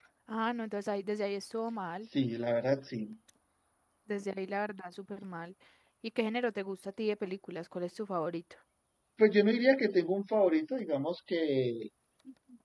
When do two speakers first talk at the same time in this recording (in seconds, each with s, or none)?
none